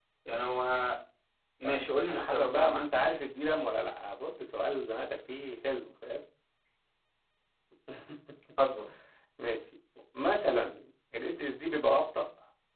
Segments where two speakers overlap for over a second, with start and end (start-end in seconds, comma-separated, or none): 1.6-2.9